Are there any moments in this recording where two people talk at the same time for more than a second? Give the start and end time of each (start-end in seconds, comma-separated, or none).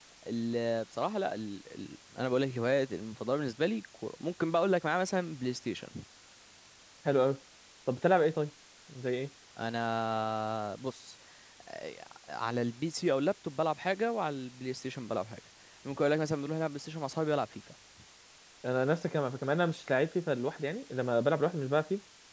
none